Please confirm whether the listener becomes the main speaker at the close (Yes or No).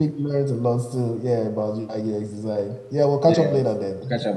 Yes